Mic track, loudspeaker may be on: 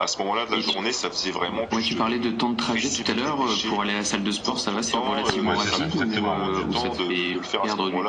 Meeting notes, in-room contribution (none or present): present